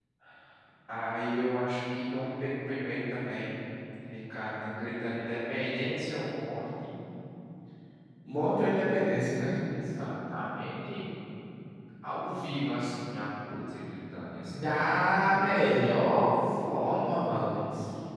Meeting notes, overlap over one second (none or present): present